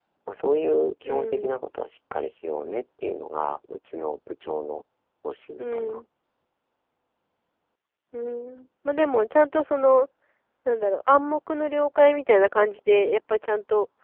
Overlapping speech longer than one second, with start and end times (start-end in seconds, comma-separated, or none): none